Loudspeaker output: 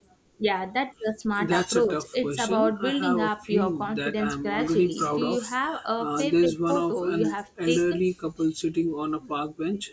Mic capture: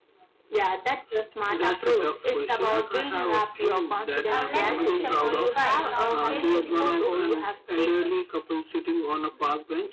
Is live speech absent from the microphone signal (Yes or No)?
No